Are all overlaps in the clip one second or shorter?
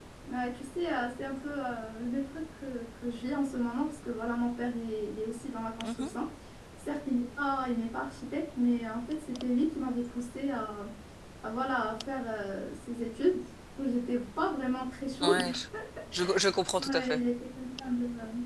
Yes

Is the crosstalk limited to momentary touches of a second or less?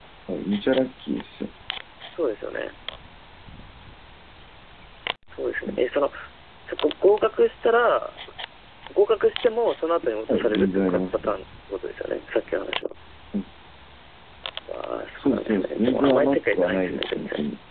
No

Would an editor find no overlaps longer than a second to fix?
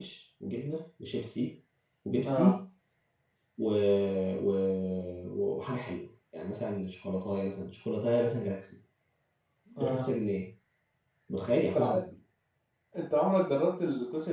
Yes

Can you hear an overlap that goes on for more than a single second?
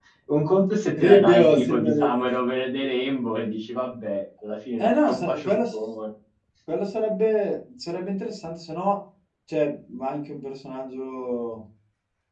Yes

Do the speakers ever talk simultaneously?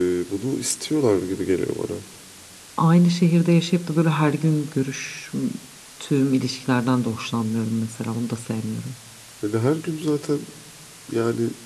No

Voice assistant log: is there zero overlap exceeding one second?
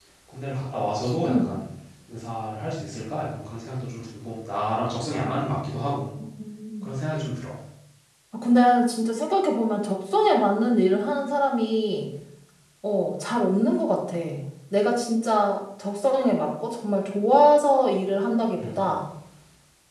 Yes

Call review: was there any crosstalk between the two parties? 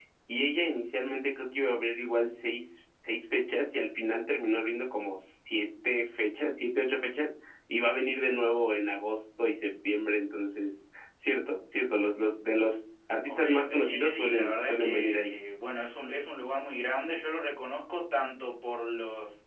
Yes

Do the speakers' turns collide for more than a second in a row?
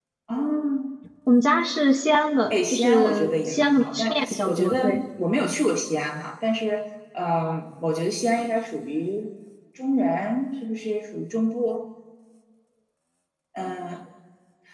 Yes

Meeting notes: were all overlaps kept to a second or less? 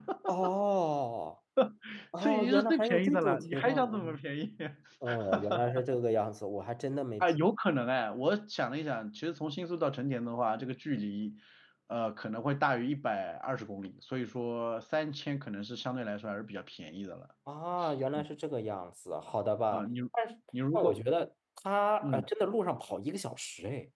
No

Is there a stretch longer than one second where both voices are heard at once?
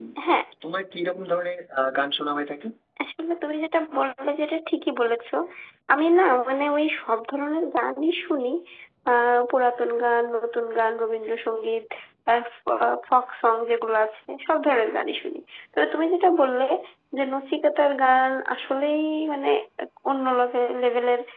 No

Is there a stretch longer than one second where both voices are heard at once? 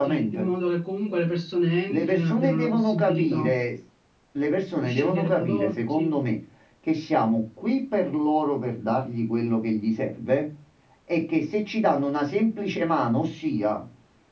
Yes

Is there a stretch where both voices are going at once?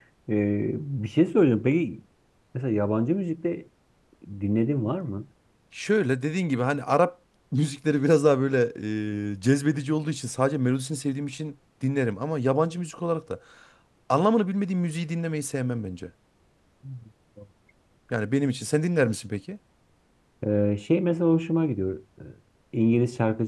No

